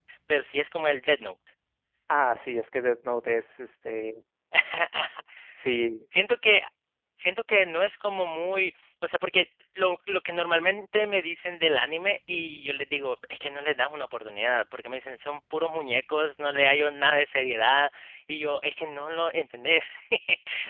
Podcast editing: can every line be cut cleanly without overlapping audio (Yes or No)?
Yes